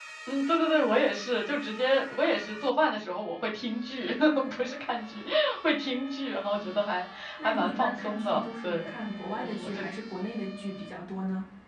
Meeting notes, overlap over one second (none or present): present